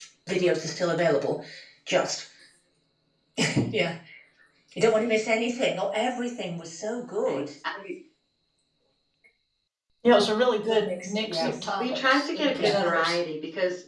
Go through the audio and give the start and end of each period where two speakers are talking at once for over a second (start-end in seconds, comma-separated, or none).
10.7-13.2